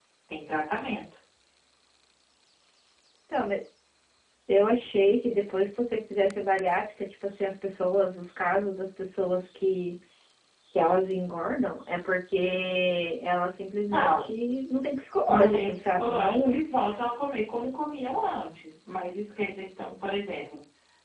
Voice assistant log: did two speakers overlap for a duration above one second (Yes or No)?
Yes